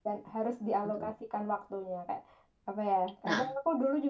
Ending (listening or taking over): listening